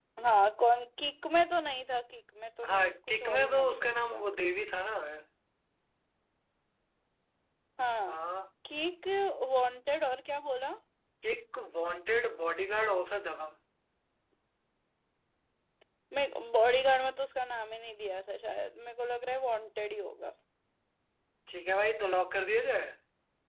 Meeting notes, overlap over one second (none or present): present